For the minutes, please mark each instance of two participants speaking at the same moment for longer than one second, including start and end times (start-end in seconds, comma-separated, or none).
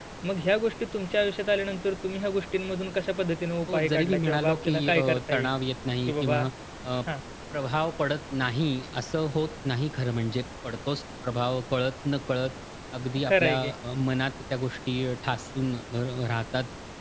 3.7-5.5